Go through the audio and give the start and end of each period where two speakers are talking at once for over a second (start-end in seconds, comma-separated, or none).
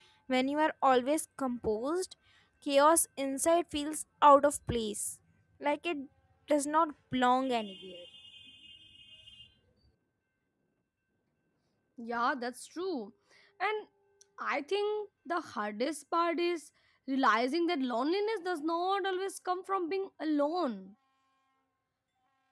none